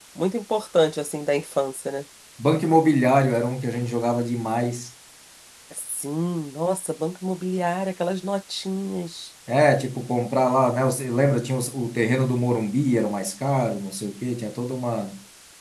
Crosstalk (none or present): none